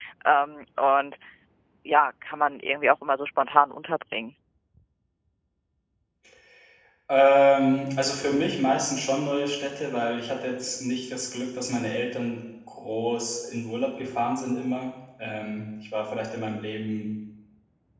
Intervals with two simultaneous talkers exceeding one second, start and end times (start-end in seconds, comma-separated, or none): none